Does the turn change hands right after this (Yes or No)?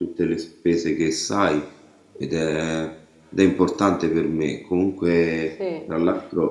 No